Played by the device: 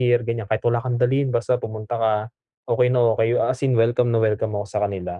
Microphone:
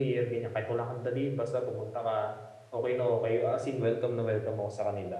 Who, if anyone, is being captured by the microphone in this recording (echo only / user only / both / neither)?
echo only